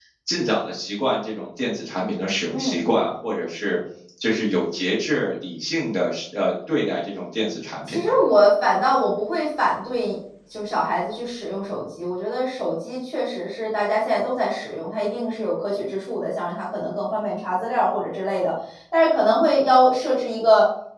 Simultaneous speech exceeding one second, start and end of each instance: none

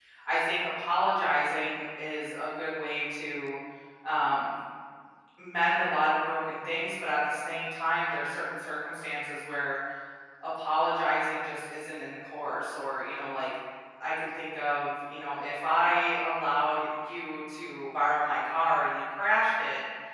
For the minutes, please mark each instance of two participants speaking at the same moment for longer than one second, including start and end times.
none

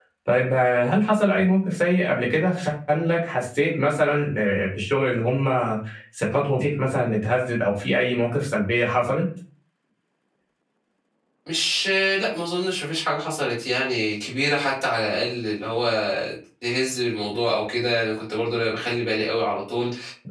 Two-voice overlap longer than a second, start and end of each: none

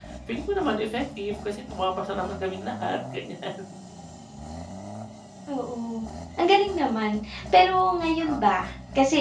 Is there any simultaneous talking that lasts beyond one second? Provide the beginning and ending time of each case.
none

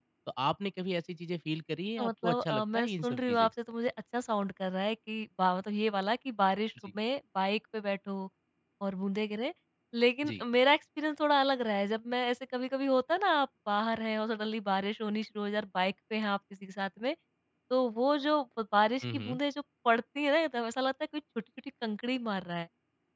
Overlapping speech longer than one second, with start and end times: 2.0-3.5

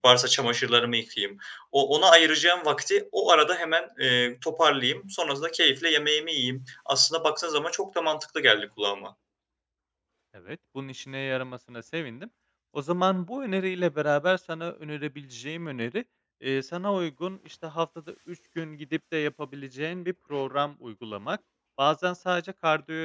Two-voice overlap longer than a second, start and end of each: none

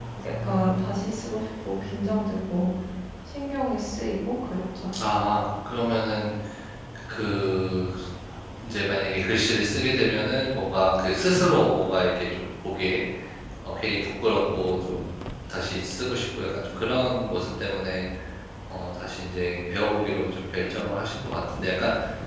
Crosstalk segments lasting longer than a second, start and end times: none

